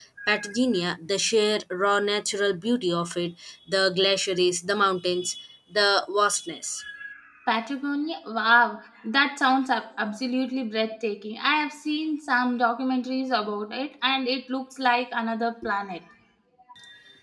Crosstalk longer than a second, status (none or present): none